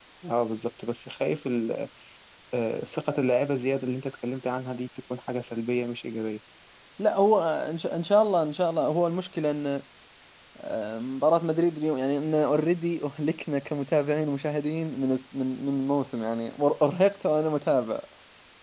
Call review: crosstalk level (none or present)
none